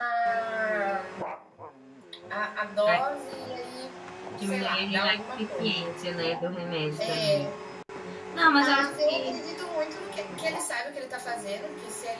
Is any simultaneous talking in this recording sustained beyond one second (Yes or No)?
Yes